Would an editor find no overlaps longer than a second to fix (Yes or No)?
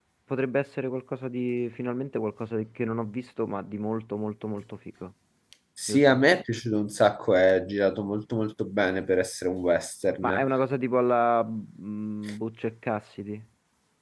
Yes